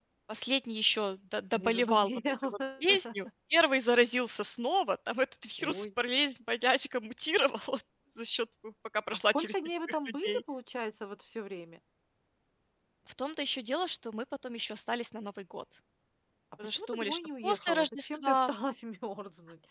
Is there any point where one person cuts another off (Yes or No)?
Yes